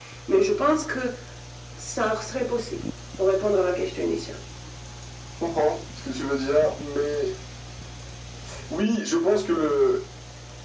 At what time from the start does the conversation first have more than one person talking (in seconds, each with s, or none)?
none